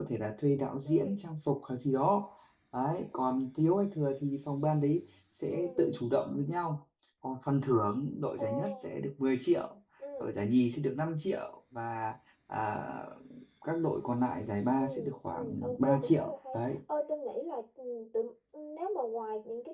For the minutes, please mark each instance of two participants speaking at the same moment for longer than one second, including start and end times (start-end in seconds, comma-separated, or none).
15.3-16.8